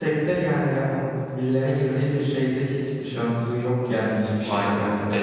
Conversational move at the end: taking over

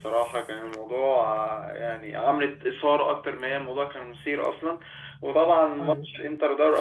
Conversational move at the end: listening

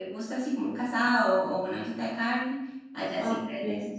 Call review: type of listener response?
taking over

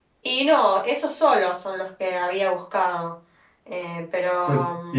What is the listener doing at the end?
taking over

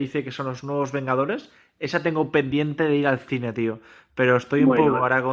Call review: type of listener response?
listening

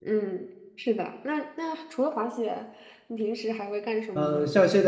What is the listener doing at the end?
taking over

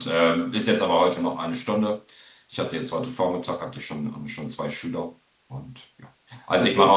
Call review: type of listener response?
listening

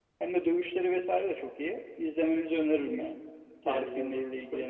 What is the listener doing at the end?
taking over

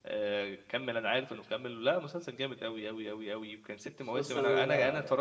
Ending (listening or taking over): listening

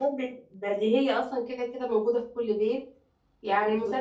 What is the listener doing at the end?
listening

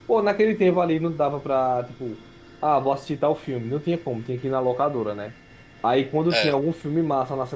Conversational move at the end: listening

